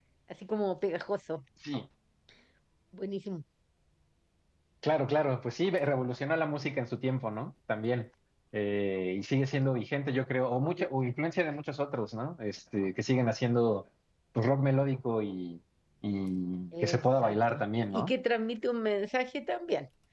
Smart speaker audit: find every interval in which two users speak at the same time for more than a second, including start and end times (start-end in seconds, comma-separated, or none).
16.8-18.1